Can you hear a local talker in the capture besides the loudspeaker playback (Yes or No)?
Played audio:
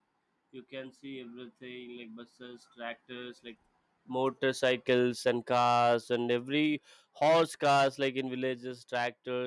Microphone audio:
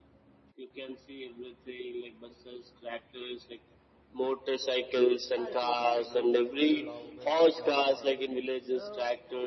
Yes